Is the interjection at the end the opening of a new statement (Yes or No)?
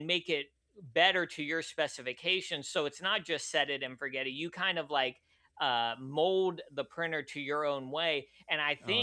Yes